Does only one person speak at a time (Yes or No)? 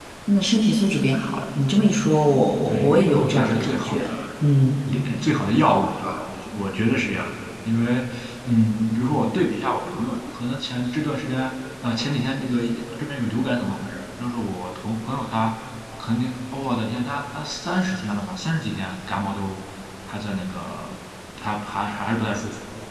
No